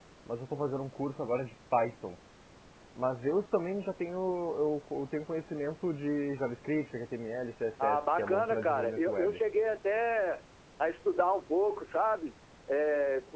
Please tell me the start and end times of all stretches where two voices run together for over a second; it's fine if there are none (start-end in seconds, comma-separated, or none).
7.8-9.4